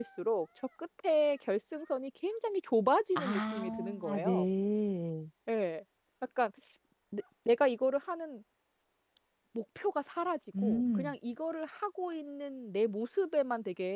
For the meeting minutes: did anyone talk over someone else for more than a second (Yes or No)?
Yes